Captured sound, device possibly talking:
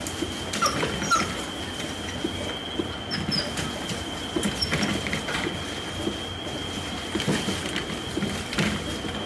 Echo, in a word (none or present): none